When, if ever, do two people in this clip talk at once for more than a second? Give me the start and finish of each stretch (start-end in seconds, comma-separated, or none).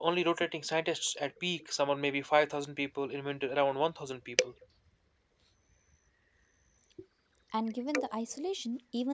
none